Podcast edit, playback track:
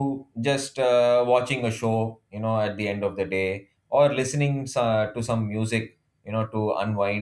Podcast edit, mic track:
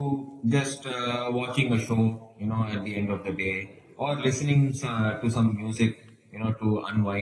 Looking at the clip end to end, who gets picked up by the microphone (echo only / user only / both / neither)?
echo only